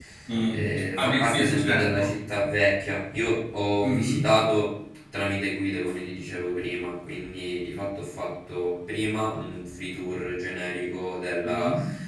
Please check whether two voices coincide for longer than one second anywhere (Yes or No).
Yes